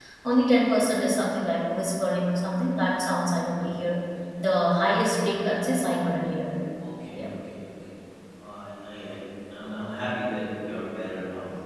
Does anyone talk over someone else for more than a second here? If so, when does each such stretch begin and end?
none

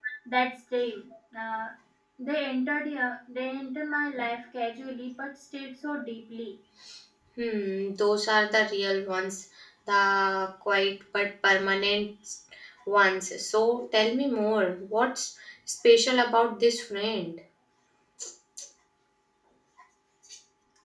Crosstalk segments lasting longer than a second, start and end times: none

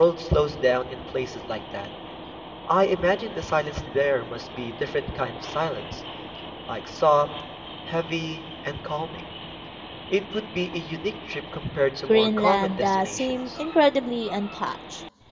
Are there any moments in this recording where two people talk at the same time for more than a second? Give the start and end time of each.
12.1-13.5

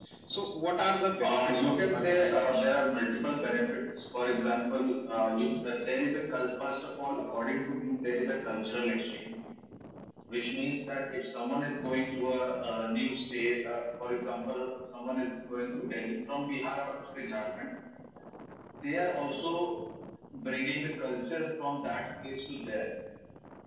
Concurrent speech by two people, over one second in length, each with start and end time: 1.2-2.6

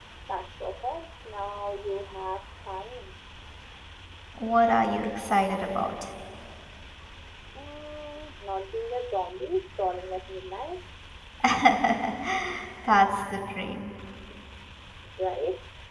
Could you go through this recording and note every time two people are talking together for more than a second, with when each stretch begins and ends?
none

